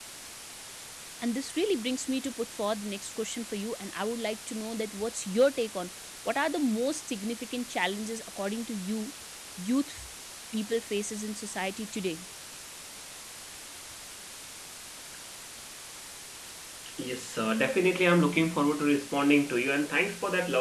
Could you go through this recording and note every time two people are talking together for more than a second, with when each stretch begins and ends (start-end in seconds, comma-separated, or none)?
none